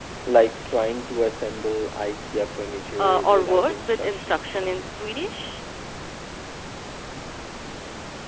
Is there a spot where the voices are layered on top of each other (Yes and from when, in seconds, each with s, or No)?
Yes, from 3.0 s